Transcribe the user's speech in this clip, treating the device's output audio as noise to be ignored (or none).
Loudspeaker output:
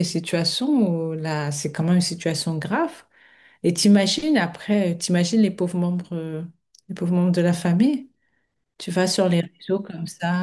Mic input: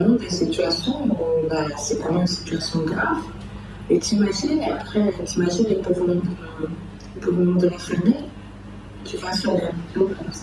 none